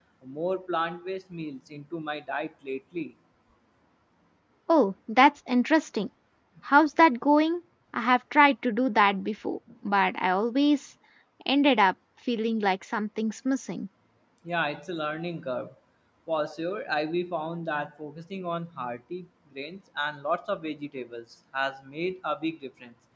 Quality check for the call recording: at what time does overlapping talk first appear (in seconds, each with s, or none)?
none